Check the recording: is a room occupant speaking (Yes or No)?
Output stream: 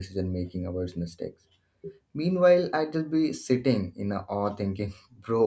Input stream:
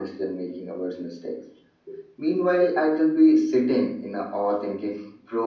No